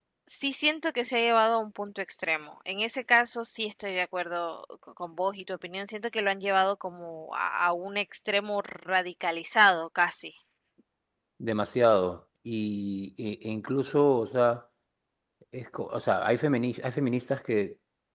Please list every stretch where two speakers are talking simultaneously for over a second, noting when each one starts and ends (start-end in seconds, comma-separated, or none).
none